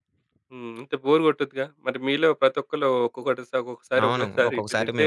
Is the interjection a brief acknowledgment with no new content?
No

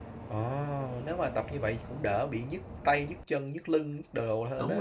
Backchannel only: No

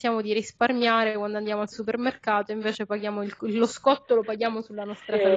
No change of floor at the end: No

